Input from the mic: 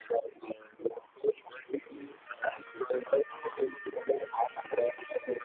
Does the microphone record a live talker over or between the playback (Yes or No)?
No